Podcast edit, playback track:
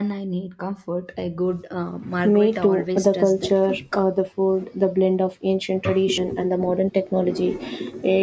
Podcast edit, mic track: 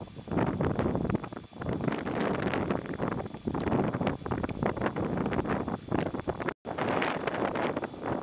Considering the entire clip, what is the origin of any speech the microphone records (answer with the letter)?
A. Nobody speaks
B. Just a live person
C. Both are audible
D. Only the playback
A